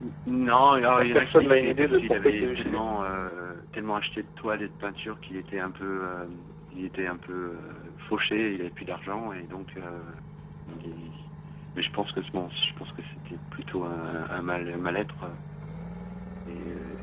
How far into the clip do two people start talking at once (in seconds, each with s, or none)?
1.0 s